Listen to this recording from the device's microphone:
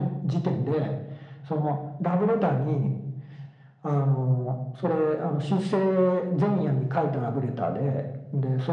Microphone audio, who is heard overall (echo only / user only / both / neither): echo only